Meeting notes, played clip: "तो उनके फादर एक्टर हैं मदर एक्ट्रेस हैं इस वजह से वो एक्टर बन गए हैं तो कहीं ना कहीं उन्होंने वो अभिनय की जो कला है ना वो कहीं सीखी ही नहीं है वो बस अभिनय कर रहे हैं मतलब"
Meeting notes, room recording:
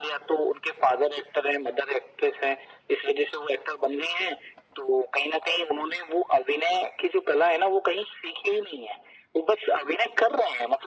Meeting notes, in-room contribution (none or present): none